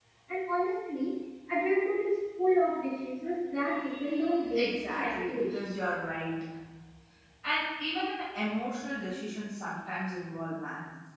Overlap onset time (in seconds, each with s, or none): 4.0 s